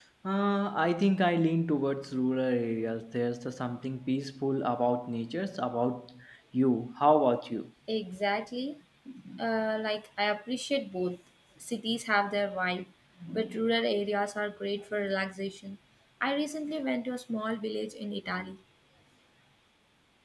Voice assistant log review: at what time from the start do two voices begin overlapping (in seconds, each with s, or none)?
none